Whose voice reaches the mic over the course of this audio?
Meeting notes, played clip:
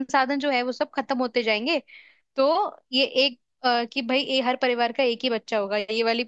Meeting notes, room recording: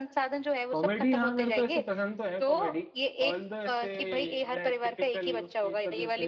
both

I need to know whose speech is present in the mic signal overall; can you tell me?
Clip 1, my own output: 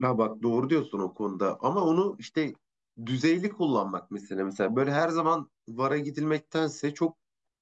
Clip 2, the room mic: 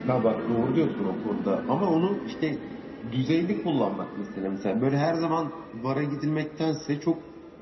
echo only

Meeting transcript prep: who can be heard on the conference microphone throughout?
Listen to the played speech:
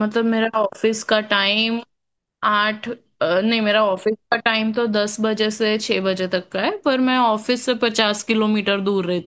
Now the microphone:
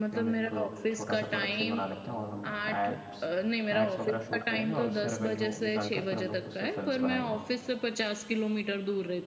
both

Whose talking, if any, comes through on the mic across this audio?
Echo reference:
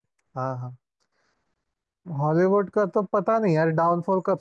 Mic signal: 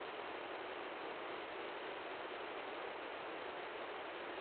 neither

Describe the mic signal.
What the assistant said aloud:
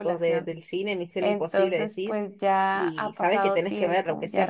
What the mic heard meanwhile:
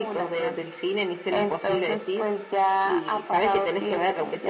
echo only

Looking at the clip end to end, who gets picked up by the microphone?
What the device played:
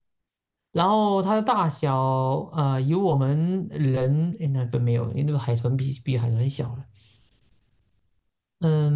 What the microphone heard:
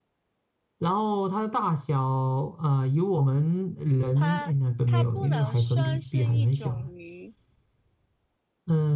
both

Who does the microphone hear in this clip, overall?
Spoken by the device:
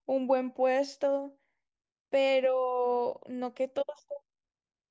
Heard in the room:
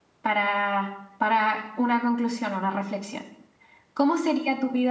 user only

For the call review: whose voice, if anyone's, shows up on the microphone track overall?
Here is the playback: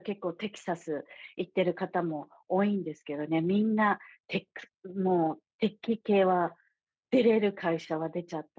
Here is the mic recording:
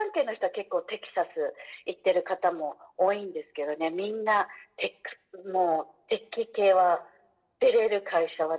echo only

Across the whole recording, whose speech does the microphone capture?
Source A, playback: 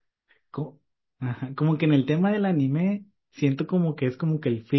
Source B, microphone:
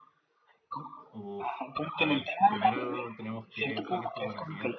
both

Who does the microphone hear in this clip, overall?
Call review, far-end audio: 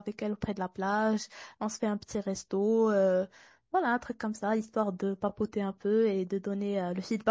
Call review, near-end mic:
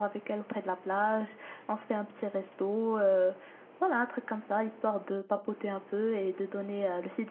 echo only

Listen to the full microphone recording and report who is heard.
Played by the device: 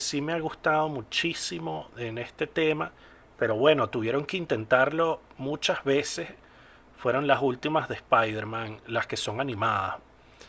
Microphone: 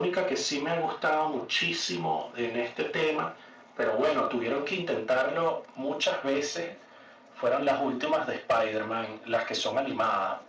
echo only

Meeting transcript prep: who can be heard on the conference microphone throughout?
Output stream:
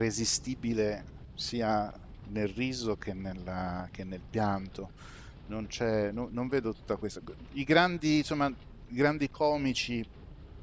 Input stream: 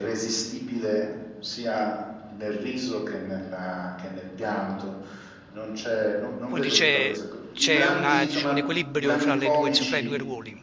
both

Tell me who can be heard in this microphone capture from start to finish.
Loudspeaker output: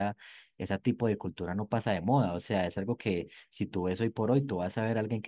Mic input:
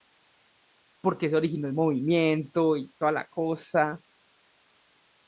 user only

